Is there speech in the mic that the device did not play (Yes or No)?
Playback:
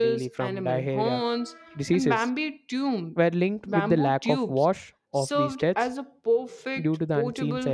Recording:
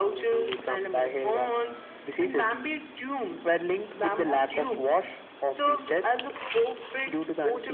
No